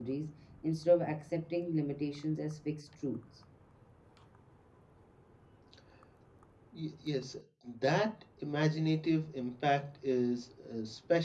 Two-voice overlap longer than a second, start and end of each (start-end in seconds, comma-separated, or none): none